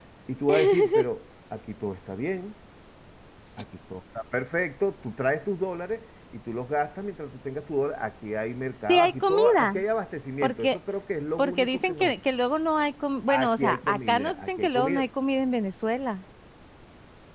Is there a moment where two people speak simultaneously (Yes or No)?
Yes